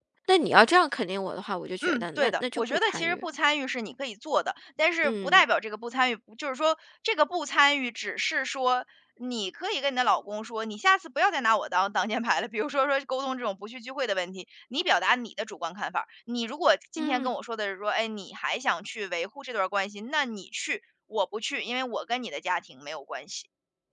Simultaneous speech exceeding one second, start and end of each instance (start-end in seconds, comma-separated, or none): 1.8-3.2